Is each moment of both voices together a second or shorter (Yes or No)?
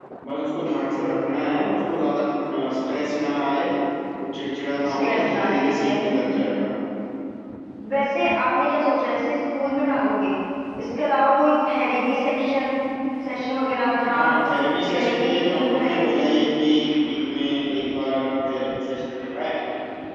No